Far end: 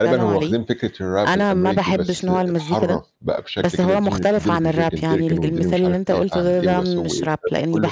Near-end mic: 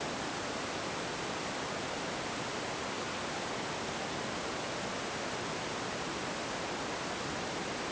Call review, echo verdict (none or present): none